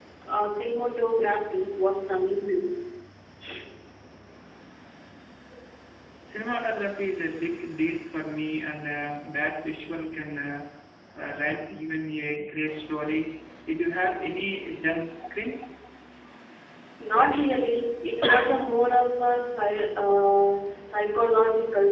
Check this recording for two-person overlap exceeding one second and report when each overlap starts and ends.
none

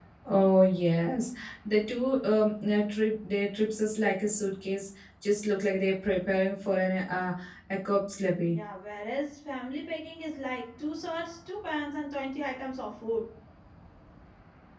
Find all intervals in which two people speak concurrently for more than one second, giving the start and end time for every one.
none

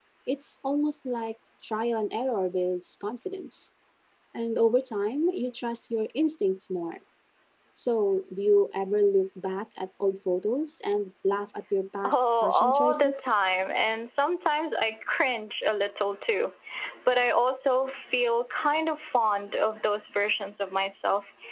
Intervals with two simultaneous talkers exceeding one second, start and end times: 12.0-13.3

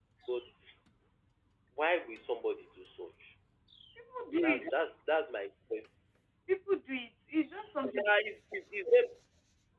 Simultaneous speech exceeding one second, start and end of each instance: none

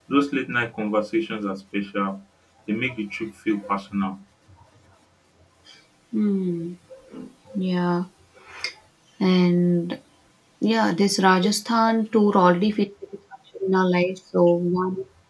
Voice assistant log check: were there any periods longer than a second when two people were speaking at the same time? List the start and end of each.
none

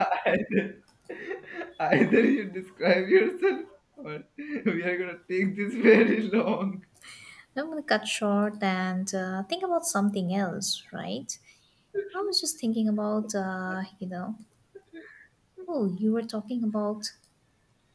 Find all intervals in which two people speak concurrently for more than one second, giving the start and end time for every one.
none

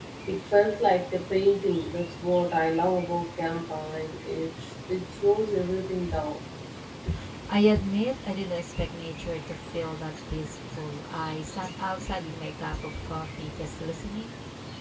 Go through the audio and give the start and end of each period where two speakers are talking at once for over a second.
none

